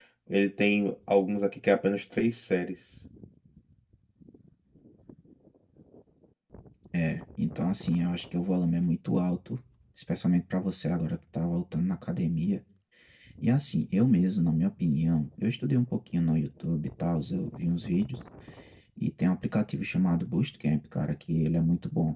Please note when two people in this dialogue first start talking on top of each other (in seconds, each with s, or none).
none